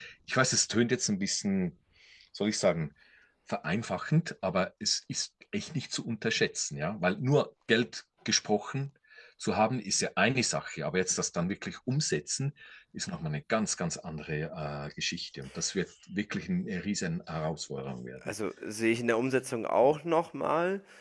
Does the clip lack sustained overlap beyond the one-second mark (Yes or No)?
Yes